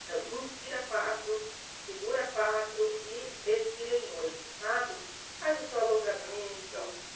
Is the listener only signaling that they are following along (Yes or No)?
Yes